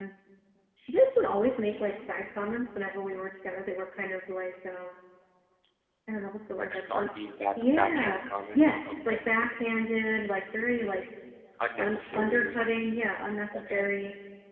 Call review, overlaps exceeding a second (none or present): present